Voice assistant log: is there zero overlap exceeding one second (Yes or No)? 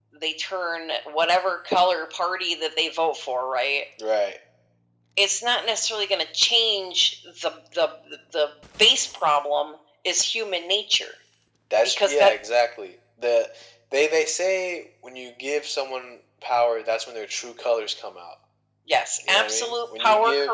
No